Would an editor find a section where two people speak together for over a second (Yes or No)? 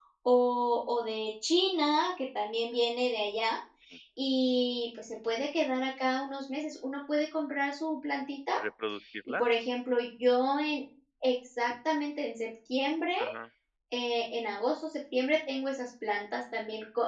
No